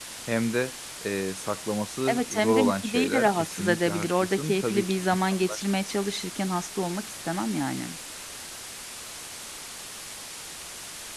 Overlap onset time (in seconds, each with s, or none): 2.1 s